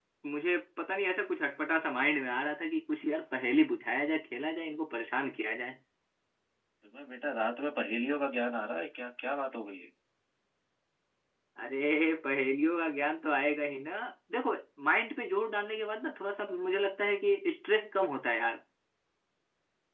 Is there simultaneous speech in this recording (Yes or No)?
No